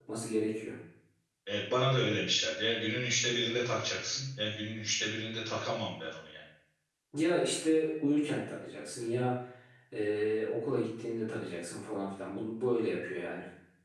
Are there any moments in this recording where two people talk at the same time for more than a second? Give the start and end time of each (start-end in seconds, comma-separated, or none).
none